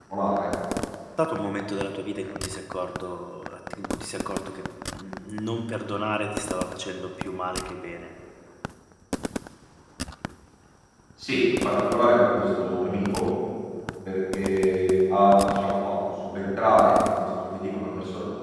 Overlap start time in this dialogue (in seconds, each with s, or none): none